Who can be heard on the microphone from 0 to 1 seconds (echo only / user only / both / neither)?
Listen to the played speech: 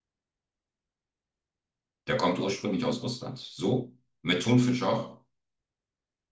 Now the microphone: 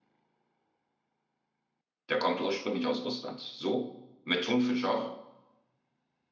neither